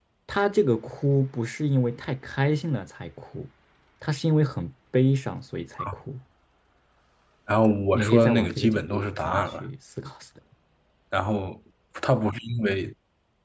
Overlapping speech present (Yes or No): Yes